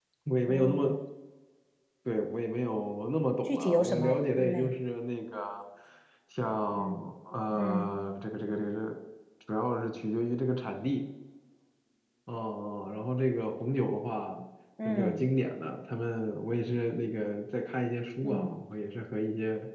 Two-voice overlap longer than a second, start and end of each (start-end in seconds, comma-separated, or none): 3.4-4.7